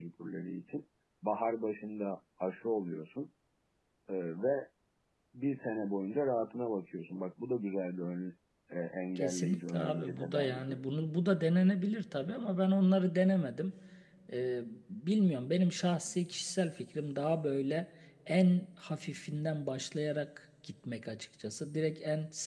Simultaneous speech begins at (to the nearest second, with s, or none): 9 s